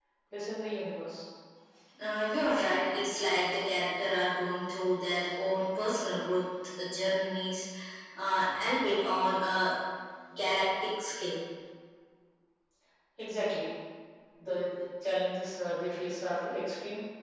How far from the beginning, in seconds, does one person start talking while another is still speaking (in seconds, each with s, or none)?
none